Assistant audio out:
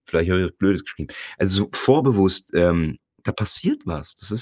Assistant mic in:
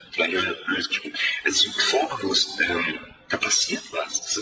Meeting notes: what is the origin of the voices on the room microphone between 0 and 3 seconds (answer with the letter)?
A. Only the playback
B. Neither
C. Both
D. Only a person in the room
A